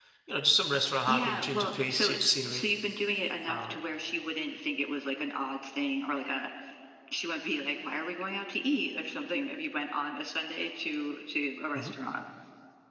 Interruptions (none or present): present